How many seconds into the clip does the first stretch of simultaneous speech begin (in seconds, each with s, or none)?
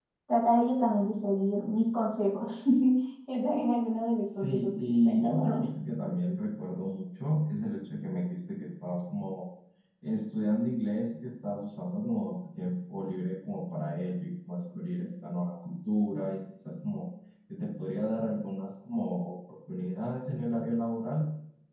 4.2 s